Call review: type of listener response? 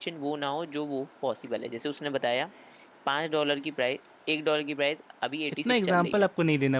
taking over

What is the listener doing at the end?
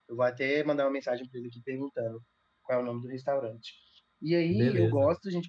listening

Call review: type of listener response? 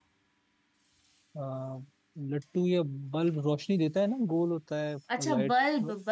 taking over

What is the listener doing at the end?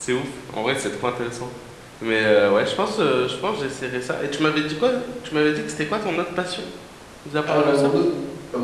taking over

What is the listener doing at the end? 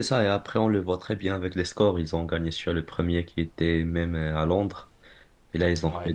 listening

